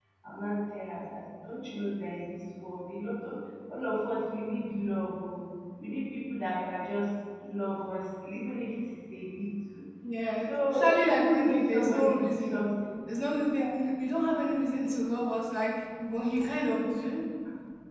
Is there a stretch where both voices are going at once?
Yes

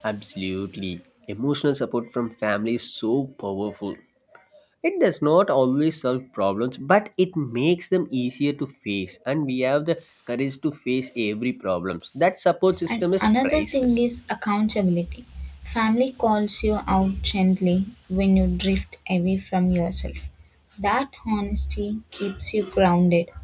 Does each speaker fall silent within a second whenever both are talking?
No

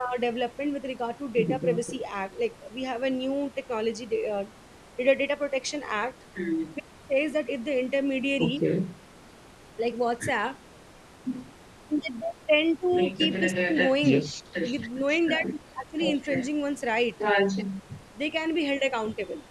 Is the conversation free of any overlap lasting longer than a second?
No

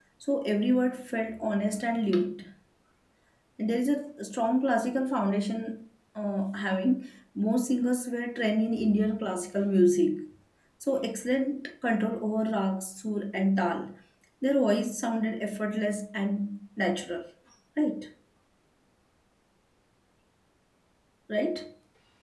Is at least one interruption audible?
No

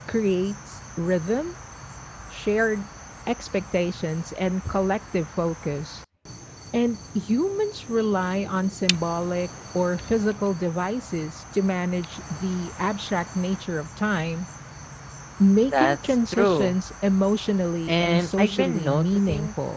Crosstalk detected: Yes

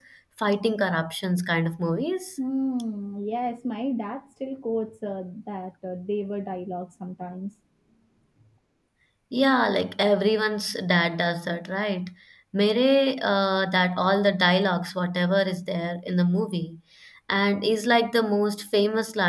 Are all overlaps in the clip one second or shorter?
Yes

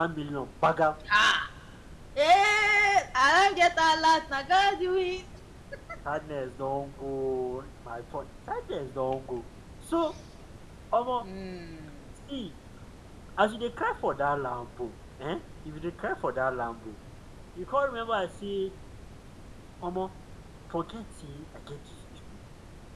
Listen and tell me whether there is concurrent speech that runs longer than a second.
No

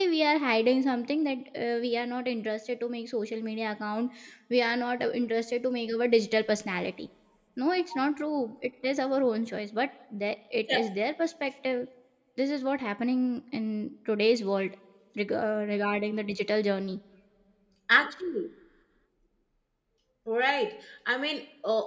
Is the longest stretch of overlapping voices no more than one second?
Yes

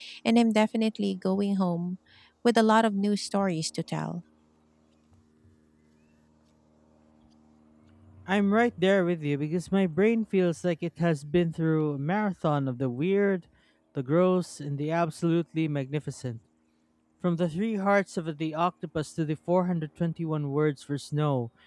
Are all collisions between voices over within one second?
Yes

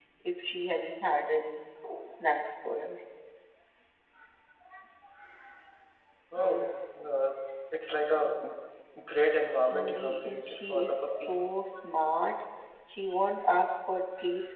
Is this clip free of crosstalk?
No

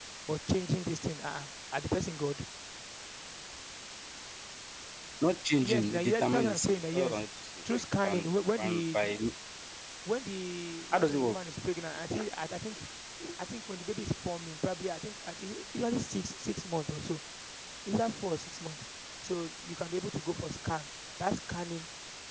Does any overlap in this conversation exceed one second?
Yes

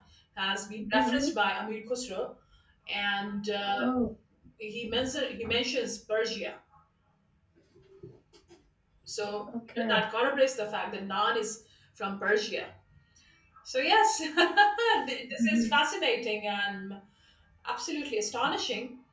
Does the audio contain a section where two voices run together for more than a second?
No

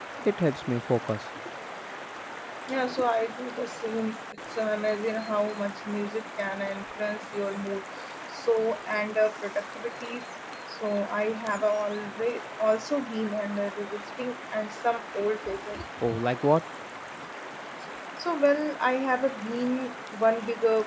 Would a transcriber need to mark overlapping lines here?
No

